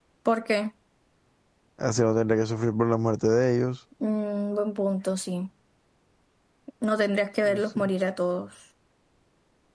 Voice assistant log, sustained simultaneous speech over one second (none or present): none